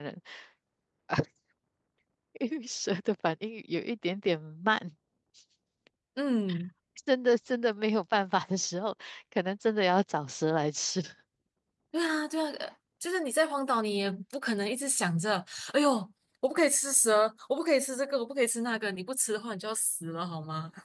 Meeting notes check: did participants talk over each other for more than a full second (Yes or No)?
No